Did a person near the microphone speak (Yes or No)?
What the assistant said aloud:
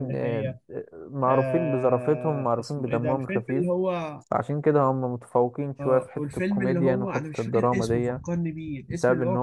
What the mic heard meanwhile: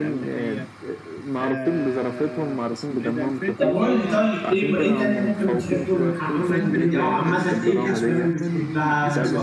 Yes